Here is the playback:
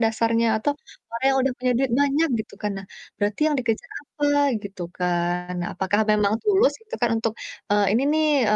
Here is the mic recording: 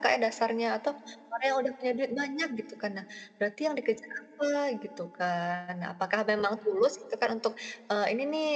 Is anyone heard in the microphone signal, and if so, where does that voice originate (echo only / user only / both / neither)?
echo only